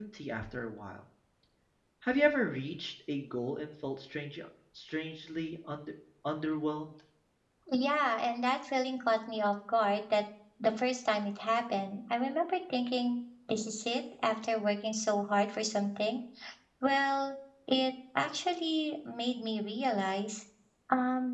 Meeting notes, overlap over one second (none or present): none